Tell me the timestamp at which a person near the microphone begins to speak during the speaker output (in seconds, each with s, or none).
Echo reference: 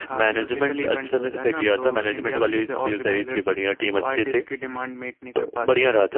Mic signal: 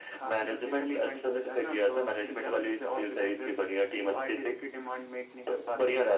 none